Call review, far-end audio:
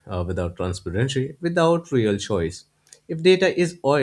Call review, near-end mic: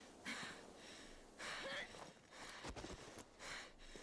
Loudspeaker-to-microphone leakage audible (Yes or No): No